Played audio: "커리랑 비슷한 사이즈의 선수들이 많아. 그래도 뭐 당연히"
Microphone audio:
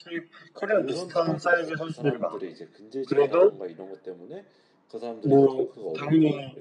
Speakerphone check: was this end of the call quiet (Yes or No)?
No